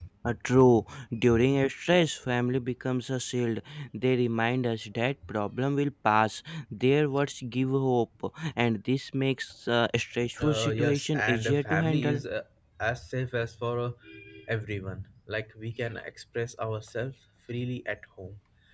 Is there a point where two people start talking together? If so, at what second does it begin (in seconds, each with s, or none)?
10.4 s